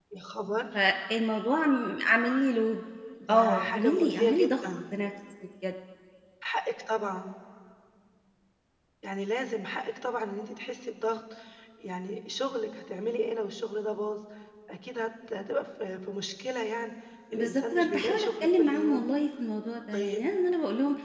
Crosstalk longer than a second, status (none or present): present